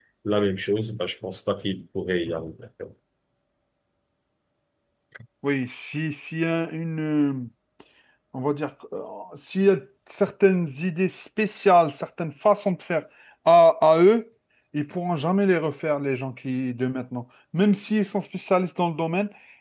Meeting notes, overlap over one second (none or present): none